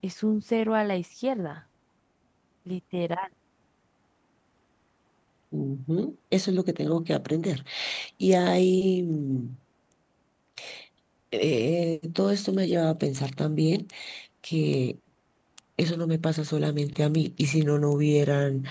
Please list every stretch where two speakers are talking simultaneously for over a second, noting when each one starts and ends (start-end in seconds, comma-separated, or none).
none